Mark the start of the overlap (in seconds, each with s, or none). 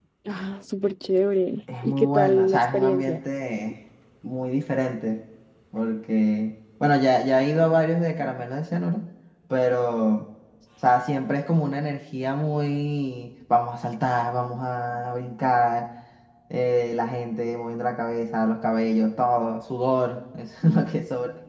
1.7 s